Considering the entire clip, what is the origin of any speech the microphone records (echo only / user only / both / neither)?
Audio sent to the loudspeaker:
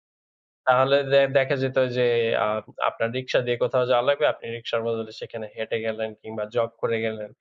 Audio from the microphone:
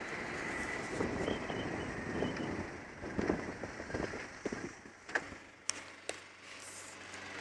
neither